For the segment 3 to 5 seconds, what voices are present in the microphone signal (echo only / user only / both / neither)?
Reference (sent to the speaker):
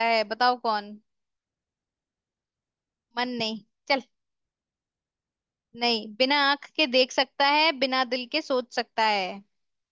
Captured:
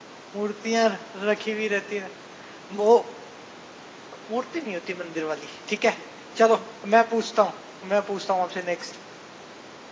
user only